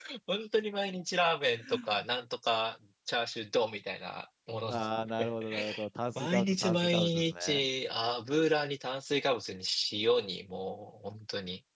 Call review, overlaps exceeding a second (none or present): present